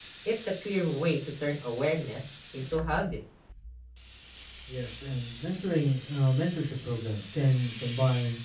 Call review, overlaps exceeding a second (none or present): none